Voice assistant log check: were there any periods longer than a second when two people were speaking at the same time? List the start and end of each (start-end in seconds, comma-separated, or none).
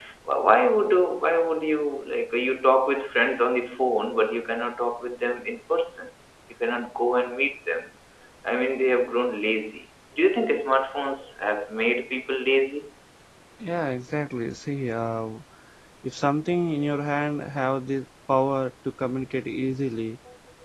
none